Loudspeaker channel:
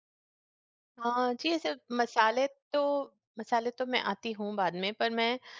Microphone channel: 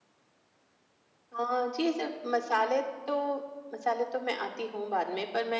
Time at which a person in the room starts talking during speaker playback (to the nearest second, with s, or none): none